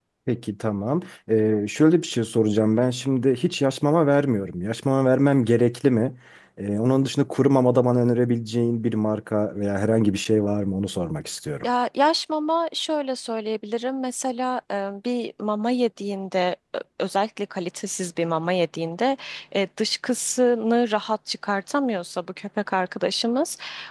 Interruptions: none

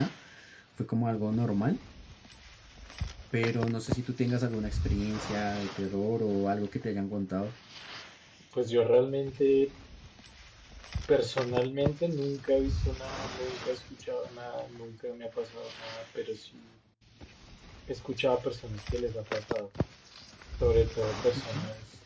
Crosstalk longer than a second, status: none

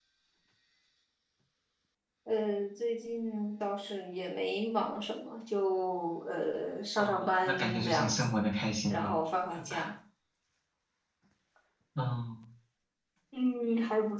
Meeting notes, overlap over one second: present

